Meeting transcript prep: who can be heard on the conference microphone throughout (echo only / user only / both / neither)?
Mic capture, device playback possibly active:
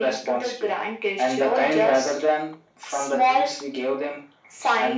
echo only